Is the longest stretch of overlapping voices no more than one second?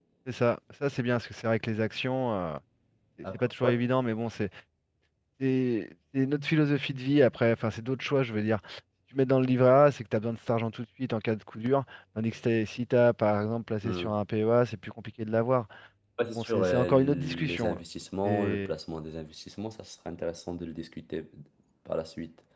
No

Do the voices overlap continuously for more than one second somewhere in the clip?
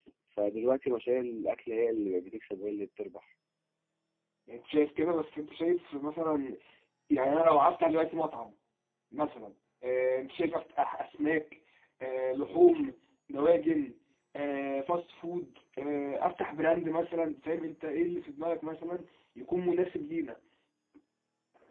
No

